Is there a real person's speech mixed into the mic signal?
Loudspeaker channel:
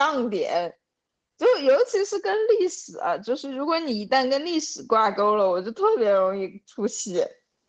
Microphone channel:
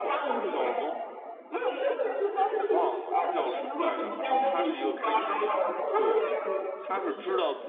Yes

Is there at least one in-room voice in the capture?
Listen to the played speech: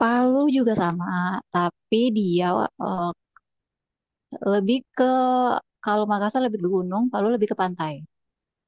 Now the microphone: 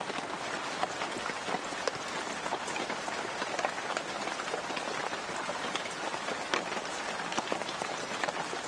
No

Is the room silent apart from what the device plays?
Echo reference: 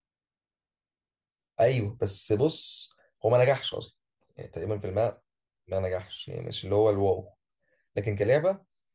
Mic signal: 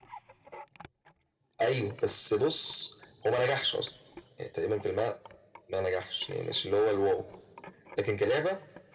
Yes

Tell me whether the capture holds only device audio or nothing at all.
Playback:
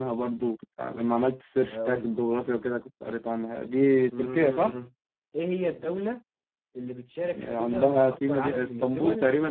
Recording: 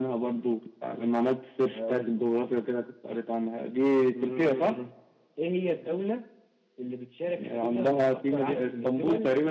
Yes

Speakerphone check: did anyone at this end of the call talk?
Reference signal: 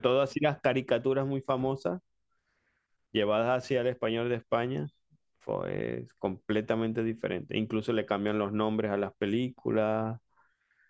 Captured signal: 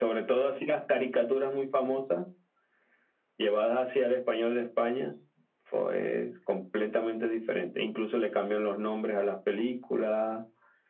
No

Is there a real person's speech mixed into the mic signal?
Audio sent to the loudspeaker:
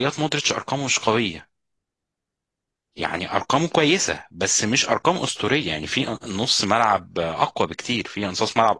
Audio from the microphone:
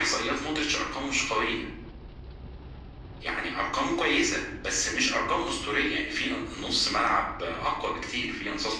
No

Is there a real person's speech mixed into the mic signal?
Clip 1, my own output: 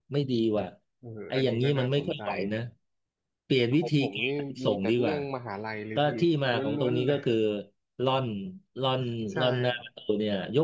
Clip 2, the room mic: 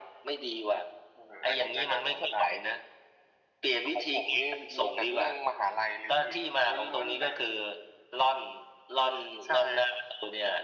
No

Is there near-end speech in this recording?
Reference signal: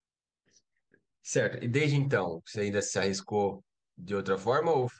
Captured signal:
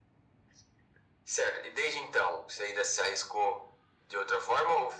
No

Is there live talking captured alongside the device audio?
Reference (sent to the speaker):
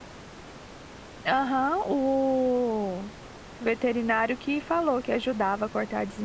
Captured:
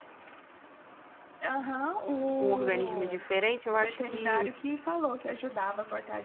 Yes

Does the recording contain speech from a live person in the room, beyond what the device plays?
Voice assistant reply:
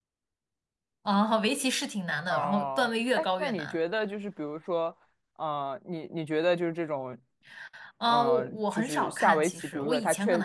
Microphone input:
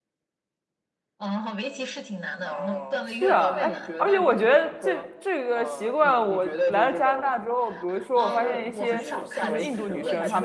Yes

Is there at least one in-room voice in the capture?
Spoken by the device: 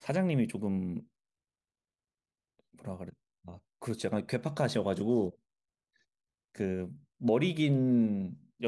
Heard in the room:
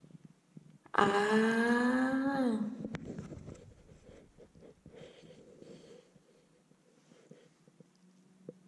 Yes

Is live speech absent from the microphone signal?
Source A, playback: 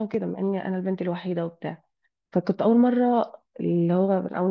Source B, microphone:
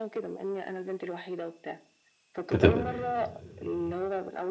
No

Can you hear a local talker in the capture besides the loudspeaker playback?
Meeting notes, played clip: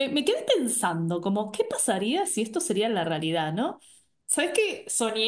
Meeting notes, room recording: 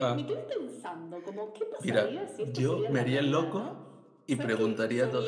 Yes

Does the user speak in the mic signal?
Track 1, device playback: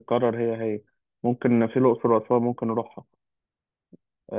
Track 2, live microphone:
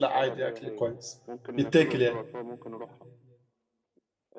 Yes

